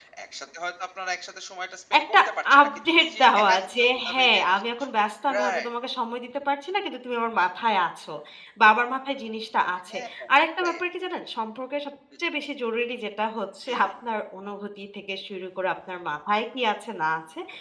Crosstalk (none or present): present